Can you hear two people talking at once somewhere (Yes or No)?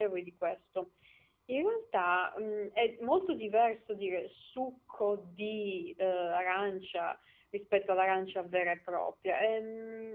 No